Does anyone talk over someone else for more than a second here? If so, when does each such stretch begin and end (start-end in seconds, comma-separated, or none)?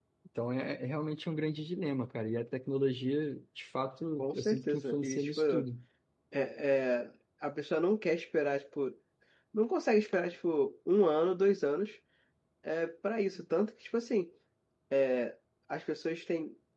4.2-5.7